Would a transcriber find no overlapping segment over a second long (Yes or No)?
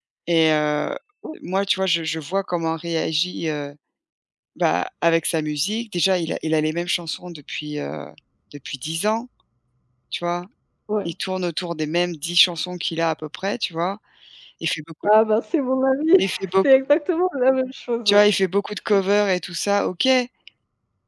Yes